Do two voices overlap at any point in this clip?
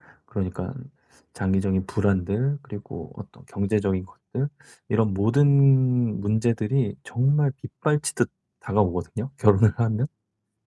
No

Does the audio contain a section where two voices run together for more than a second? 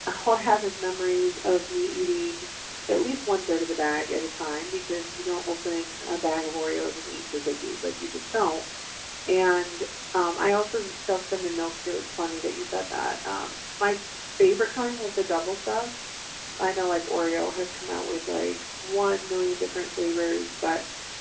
No

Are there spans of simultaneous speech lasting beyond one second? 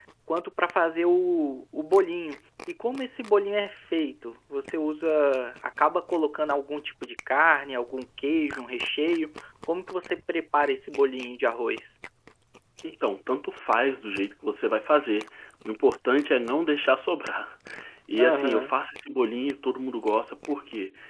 No

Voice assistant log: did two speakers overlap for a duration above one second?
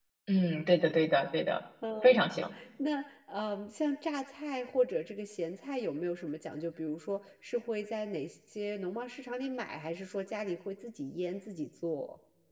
No

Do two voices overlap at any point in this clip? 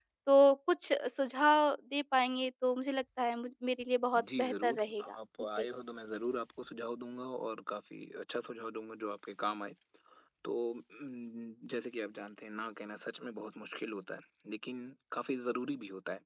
Yes, from 4.1 s

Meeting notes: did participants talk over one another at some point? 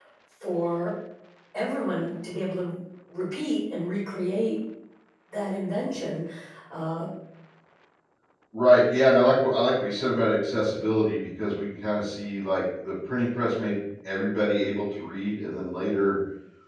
No

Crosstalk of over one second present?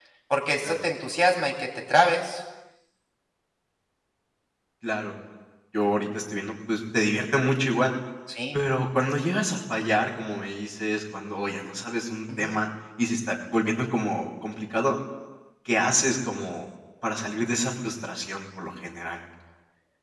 No

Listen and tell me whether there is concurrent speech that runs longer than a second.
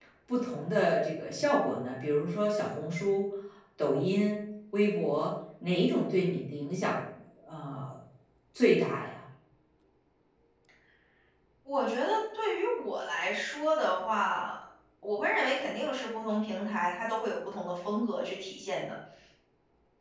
No

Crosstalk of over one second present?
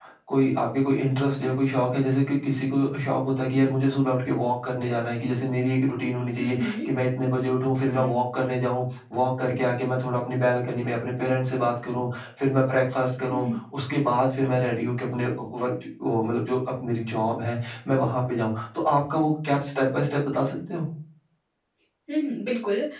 No

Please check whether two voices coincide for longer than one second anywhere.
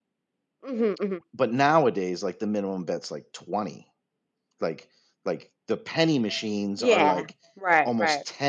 No

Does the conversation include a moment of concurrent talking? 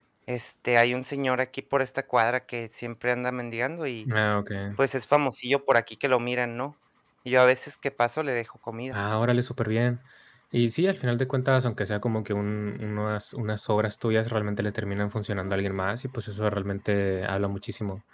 No

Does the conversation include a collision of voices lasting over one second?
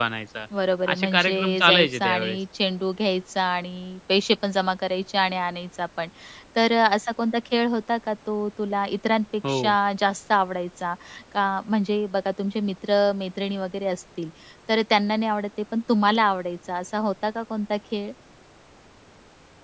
Yes, from 0.9 s

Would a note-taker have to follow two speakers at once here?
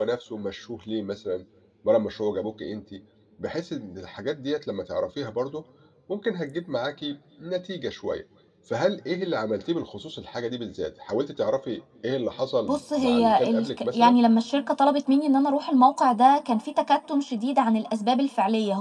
Yes, from 12.6 s

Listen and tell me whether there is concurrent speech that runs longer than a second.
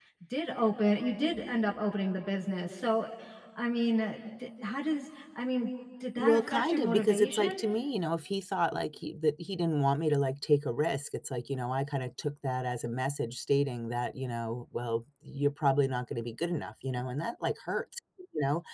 Yes, from 6.2 s

